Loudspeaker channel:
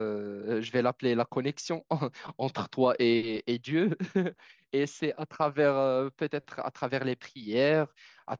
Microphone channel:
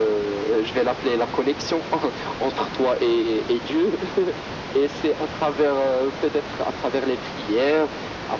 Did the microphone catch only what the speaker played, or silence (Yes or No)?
Yes